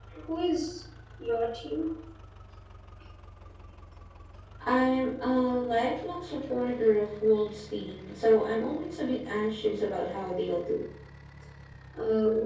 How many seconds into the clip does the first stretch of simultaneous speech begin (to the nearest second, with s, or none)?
none